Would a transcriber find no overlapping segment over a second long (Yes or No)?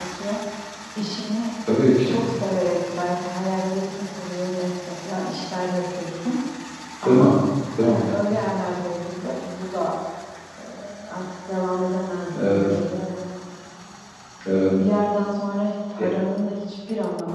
Yes